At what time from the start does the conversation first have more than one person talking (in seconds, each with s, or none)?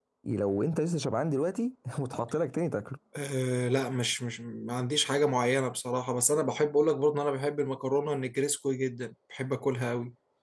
none